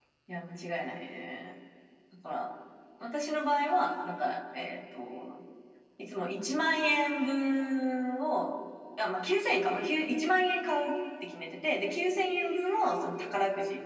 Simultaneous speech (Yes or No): No